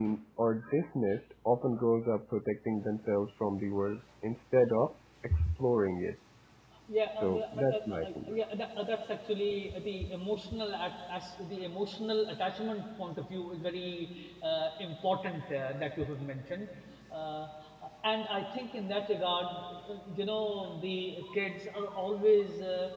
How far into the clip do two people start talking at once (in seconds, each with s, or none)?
7.1 s